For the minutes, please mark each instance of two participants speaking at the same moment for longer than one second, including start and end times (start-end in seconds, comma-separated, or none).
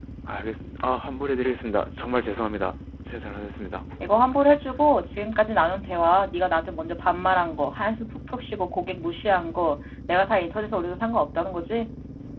none